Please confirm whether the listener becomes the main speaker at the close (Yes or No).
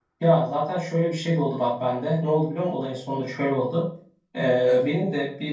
No